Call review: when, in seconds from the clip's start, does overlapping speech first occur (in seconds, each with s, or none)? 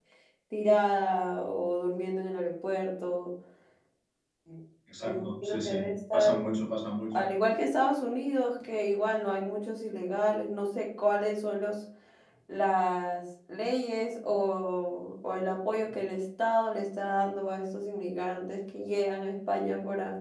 5.0 s